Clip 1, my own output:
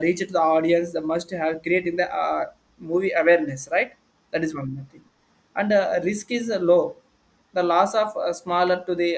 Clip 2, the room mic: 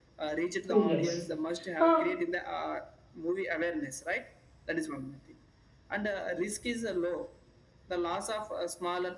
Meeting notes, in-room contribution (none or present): present